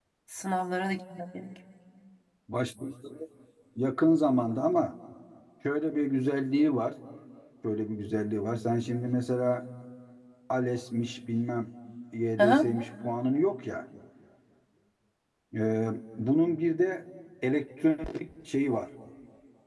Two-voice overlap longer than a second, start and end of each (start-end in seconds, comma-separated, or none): none